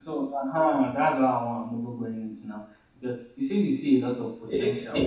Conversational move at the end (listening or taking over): listening